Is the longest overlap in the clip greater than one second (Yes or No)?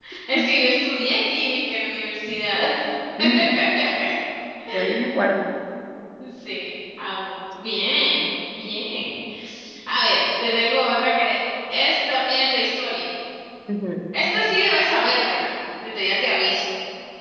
No